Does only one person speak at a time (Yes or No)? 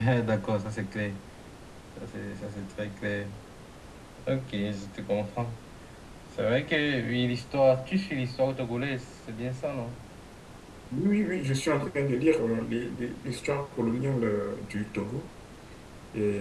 Yes